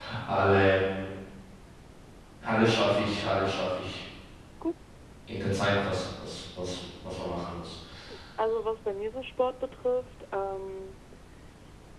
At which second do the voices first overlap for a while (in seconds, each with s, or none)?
none